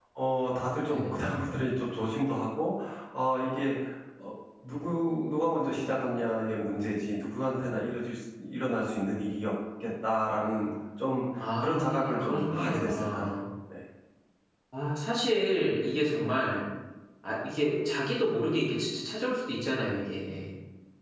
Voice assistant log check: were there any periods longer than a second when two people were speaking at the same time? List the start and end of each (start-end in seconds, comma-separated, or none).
11.6-13.3